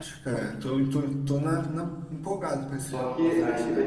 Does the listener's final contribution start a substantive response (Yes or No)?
Yes